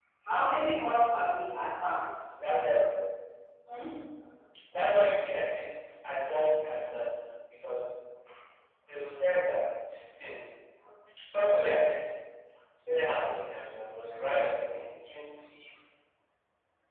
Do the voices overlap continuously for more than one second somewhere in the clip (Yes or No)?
No